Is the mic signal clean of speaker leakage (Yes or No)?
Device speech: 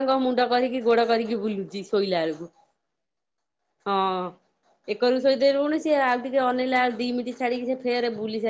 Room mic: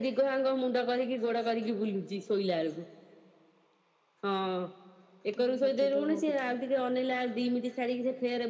No